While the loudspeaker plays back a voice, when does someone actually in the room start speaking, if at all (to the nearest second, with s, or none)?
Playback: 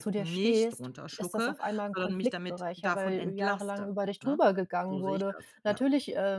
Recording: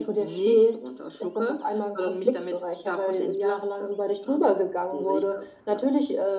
none